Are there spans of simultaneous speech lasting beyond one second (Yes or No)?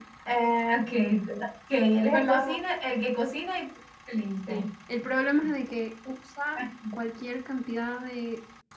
No